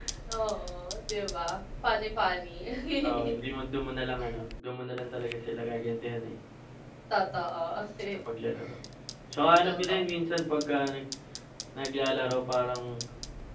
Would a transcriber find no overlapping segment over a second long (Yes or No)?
Yes